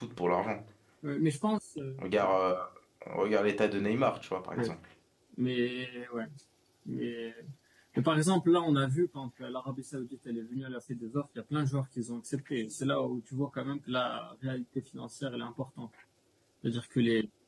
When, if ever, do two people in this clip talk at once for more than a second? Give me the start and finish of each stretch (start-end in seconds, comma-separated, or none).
none